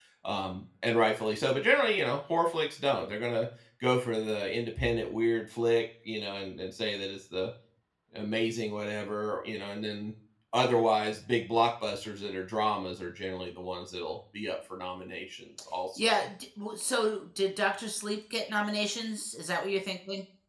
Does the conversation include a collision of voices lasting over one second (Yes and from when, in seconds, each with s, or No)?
No